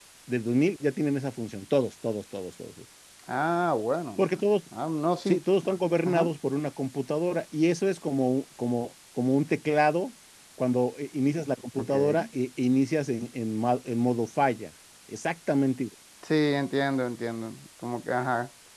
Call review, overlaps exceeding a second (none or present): none